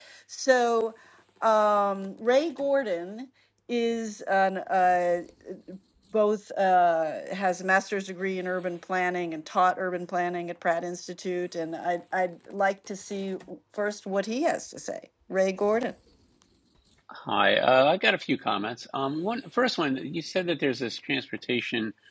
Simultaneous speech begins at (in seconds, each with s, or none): none